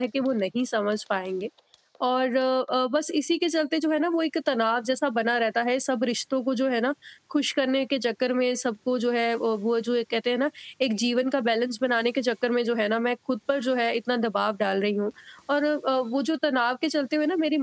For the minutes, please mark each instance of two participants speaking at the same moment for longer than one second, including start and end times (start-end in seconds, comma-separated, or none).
none